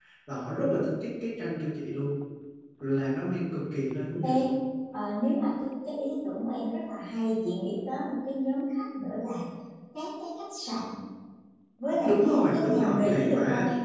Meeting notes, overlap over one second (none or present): present